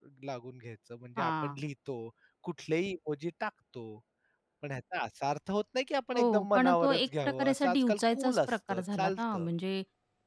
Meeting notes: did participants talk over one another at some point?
Yes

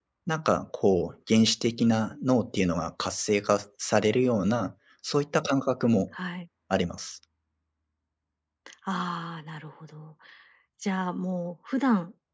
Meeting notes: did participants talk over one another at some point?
No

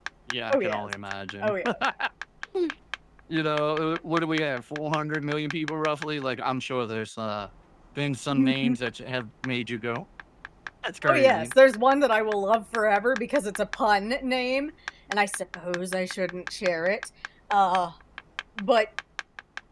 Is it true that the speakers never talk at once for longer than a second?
Yes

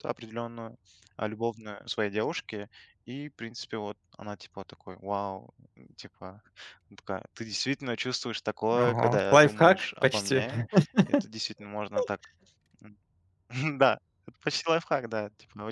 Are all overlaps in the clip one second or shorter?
No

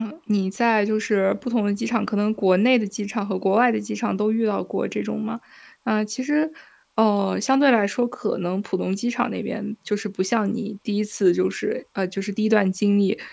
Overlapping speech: No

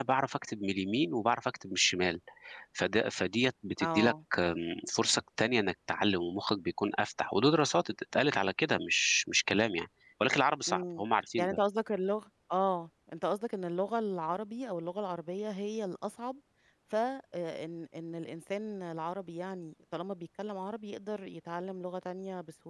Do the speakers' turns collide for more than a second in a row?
No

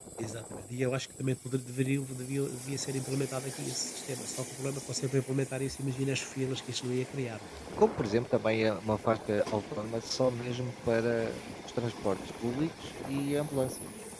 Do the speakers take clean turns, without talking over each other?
Yes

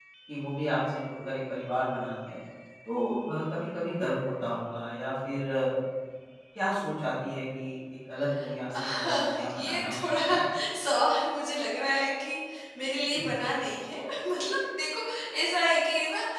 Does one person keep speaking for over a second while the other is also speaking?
Yes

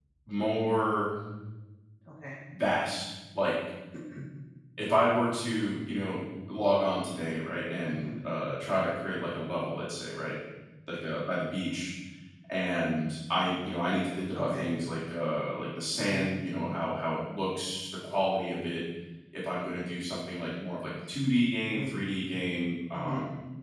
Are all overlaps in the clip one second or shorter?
Yes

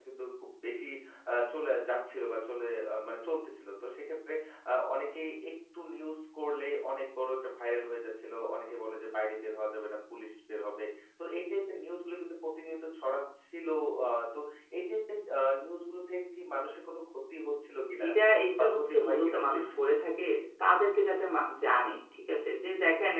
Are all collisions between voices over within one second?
No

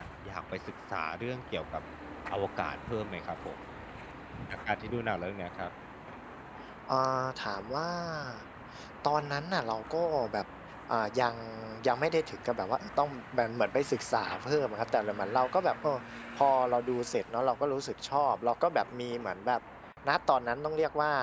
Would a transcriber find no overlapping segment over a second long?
Yes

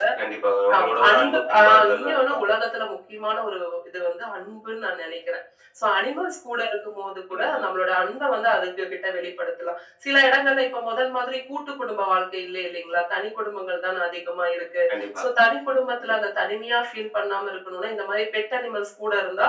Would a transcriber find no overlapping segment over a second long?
No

